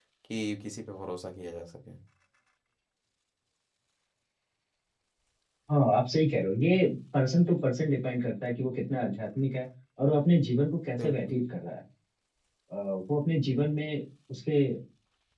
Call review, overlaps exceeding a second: none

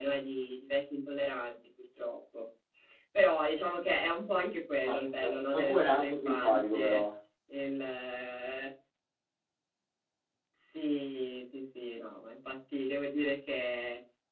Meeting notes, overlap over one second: present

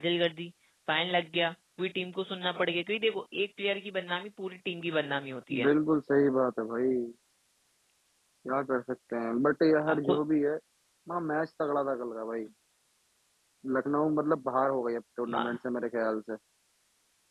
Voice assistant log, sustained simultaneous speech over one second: none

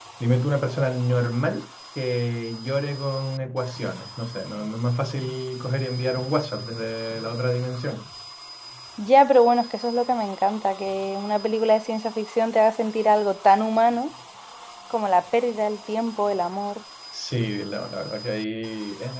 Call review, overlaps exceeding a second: none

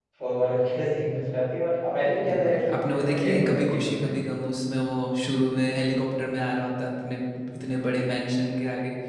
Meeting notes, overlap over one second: present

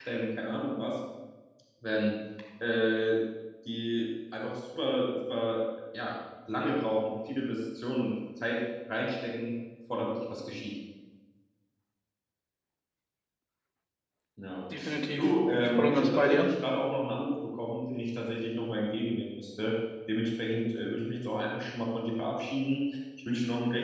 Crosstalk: present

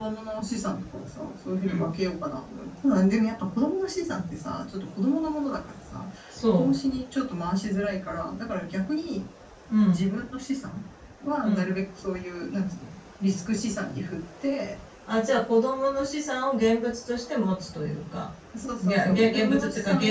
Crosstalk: present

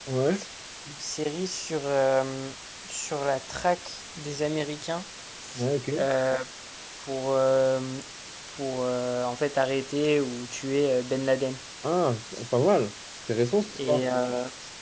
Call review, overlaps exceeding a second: none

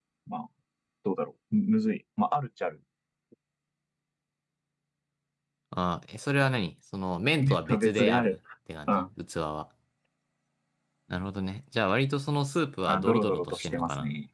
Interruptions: present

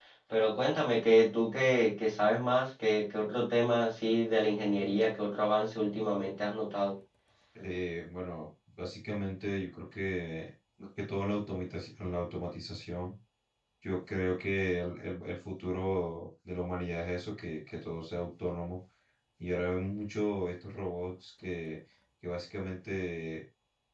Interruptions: none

